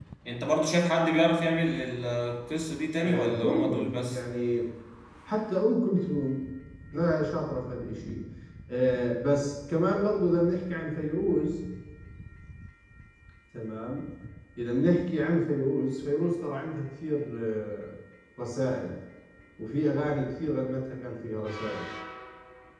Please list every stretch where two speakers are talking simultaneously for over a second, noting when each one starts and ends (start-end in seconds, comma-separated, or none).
3.0-4.2